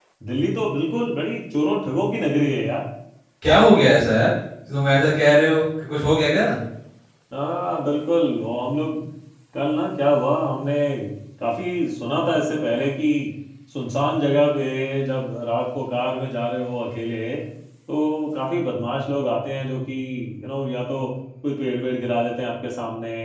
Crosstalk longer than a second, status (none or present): none